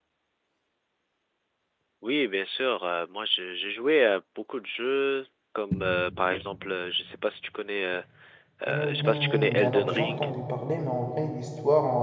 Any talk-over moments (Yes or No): Yes